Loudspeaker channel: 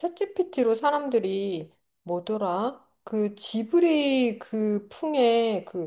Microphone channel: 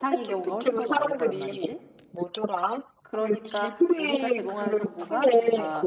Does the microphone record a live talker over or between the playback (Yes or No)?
Yes